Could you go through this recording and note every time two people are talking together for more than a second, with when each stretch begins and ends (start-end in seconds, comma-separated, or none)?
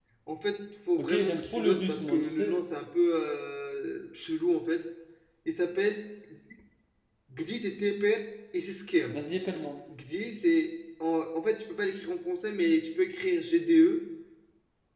1.0-2.6